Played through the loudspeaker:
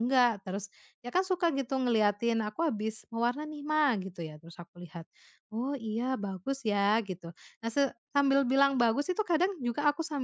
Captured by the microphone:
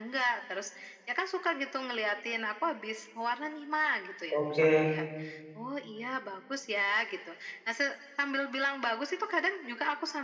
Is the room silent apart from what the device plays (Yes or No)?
No